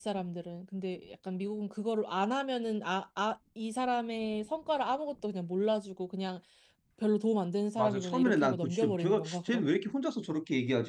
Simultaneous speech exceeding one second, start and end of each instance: 7.8-9.7

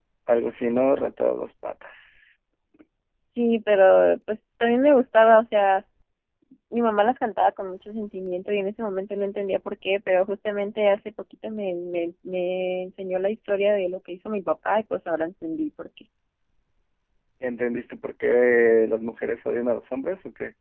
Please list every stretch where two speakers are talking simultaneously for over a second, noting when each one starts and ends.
none

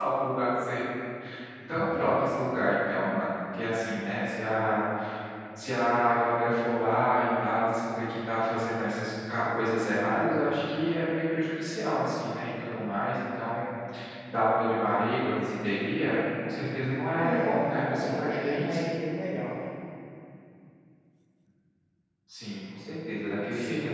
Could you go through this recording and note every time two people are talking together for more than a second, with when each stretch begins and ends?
17.1-18.8

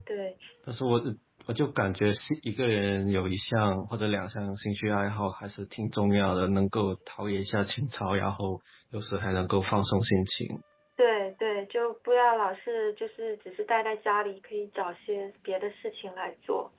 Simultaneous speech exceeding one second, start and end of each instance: none

